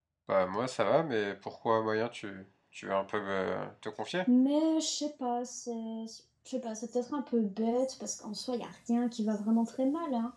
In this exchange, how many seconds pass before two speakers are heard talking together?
none

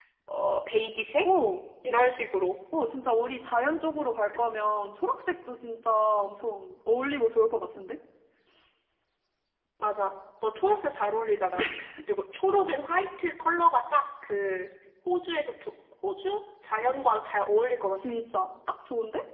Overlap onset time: none

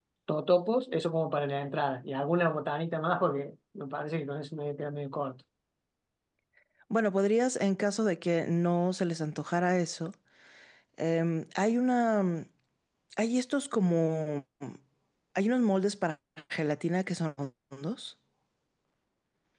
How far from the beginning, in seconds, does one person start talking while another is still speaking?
none

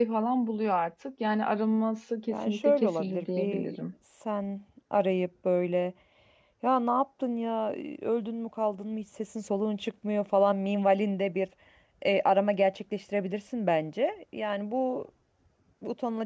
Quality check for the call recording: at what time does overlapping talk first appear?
2.3 s

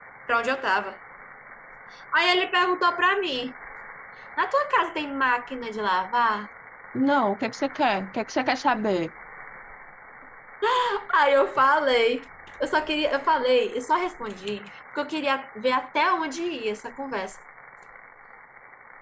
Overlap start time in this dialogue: none

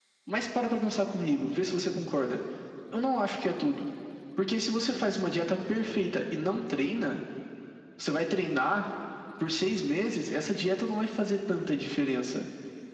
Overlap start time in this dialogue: none

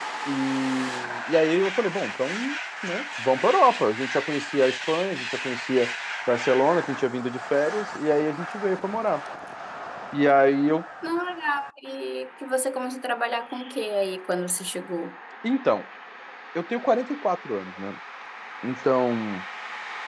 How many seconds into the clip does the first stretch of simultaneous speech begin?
none

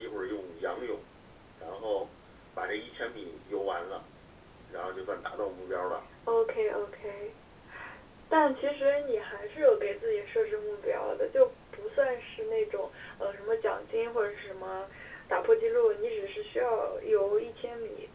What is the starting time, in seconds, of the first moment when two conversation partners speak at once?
none

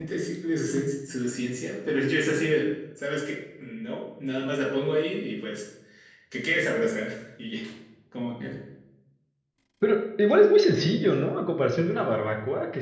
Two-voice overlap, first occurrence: none

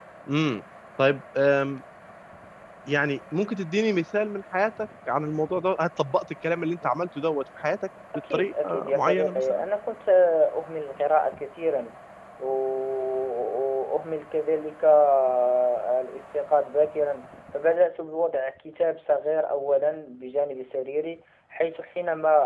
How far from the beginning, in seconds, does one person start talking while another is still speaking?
8.1 s

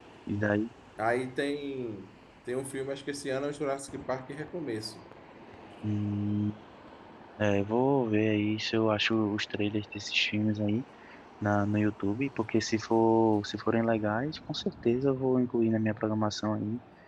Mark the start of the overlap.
none

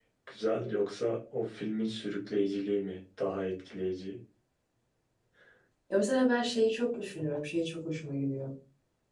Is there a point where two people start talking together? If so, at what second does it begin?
none

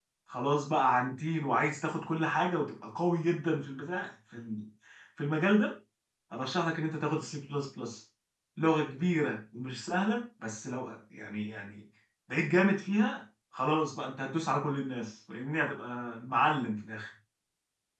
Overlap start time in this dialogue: none

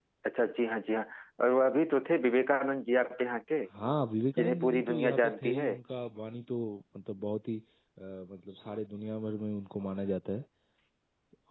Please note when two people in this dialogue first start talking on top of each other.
4.4 s

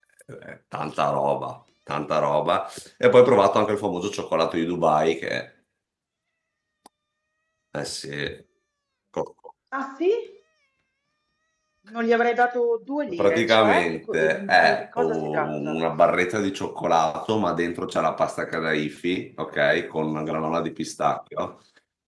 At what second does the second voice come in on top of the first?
13.1 s

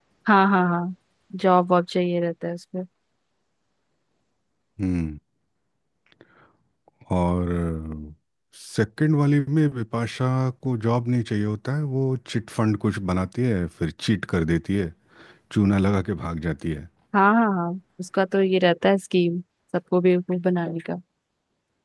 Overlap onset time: none

